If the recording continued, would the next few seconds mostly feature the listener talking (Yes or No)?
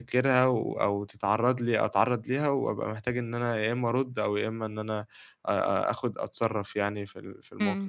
Yes